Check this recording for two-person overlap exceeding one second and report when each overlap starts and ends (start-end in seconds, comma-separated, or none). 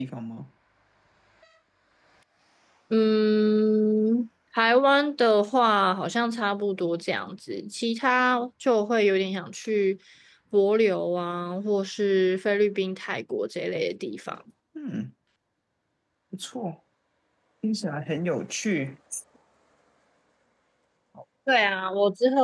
none